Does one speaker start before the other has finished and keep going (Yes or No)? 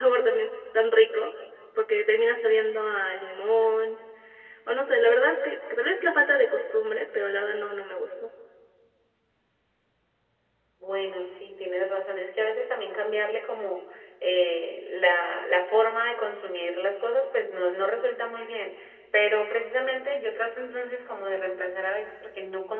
No